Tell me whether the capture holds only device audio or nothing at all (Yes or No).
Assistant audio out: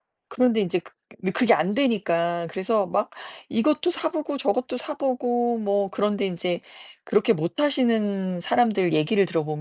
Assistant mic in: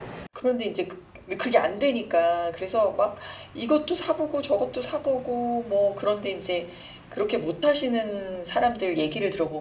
Yes